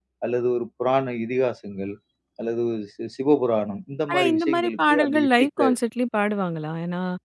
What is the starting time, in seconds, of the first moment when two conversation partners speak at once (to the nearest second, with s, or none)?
4 s